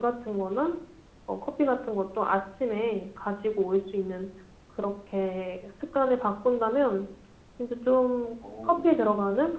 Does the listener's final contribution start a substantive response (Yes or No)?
No